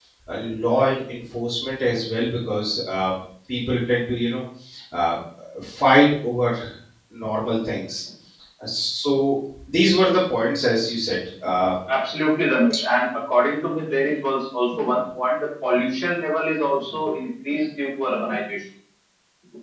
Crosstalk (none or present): none